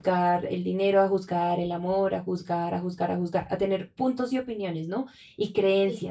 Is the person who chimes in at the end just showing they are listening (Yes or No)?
Yes